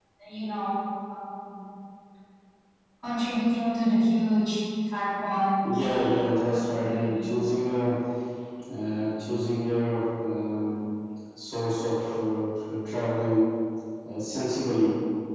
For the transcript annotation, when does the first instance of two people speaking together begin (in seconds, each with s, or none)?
5.6 s